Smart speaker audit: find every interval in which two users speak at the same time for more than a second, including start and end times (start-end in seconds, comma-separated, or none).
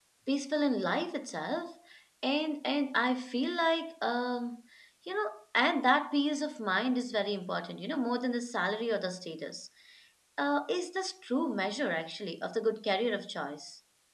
none